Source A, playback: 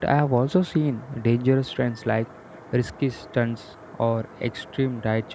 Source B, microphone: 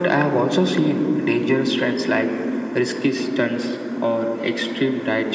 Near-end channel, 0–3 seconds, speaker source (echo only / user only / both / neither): echo only